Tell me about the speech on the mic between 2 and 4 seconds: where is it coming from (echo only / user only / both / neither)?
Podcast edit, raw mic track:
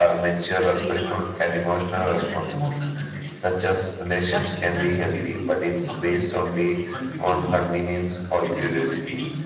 both